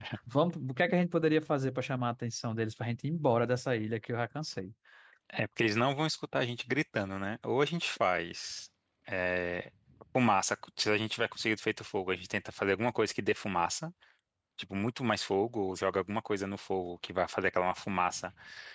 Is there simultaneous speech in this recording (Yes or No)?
No